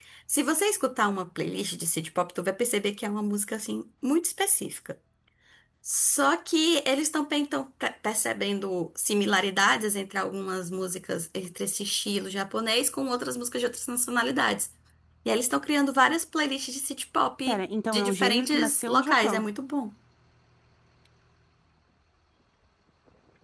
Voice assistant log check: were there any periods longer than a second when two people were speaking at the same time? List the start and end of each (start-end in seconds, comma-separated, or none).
17.5-19.4